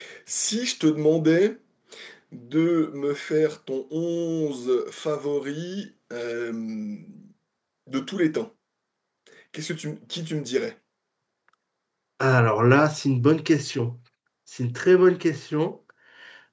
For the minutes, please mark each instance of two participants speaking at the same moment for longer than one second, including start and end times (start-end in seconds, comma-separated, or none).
none